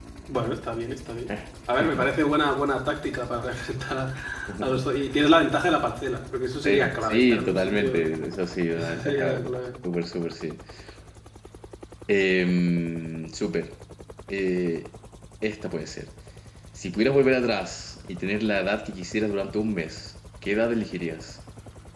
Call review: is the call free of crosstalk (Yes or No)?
No